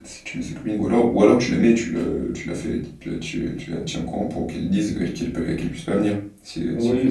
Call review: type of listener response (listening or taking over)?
taking over